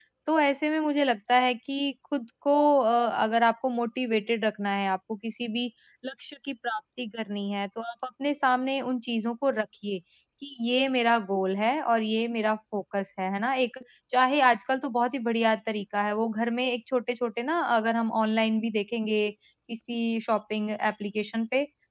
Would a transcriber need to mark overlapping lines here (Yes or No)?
No